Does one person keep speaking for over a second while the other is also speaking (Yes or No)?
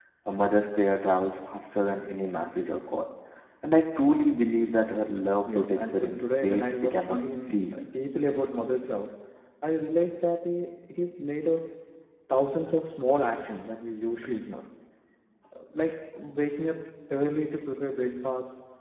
Yes